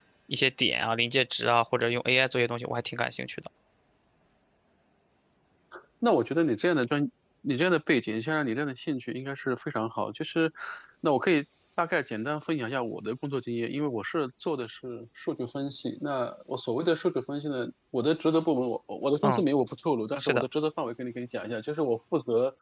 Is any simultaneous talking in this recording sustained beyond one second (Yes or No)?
No